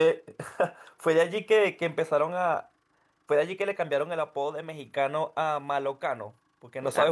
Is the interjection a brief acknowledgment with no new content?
No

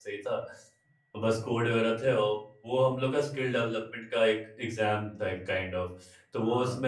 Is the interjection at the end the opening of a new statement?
No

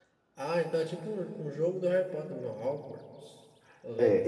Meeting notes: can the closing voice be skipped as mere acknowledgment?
No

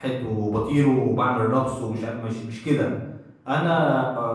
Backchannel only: Yes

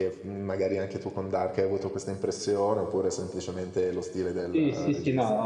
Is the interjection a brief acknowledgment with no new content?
No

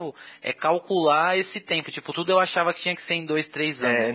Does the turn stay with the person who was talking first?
Yes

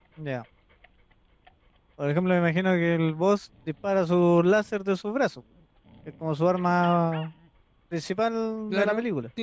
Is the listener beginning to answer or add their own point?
Yes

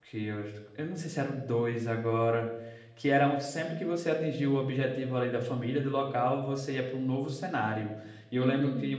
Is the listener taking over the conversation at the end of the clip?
No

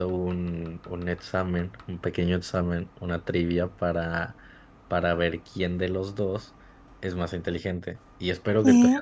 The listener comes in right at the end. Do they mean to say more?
No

